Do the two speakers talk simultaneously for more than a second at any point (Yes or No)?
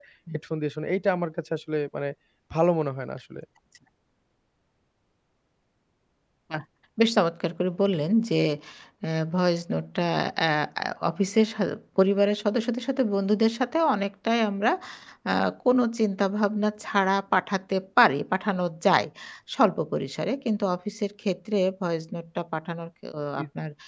No